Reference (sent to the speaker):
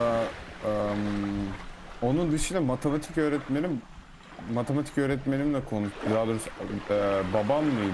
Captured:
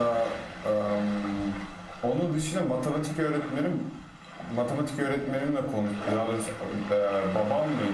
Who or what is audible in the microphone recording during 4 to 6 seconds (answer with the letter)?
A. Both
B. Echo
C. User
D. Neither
B